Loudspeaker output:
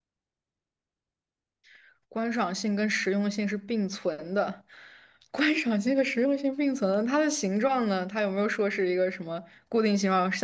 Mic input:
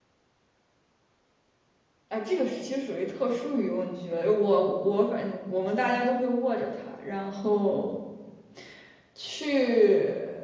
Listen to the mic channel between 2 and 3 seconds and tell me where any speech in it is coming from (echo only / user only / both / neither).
user only